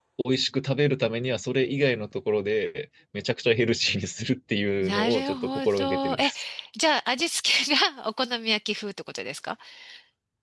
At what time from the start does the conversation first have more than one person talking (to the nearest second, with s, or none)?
5 s